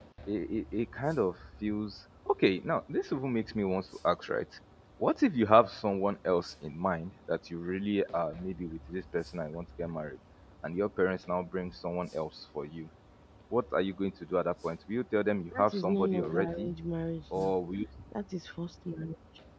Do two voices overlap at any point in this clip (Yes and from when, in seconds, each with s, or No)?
Yes, from 15.5 s